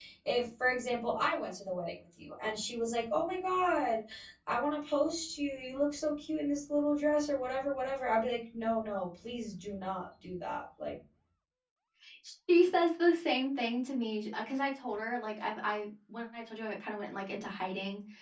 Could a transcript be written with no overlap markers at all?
Yes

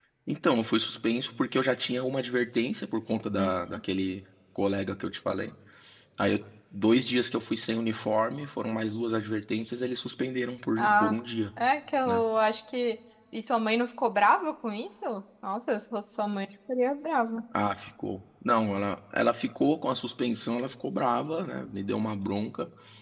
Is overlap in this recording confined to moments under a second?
Yes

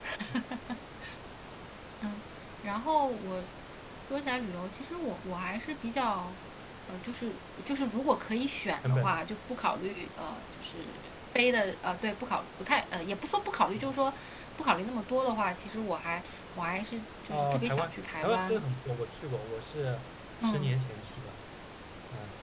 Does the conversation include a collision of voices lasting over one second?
Yes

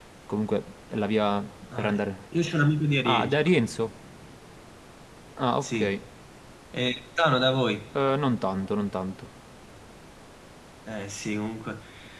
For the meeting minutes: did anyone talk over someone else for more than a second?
No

